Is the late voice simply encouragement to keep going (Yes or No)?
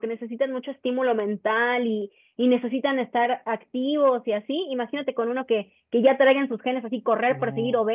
Yes